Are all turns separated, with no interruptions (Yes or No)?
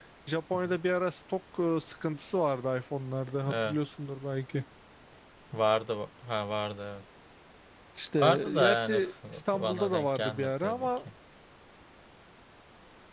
No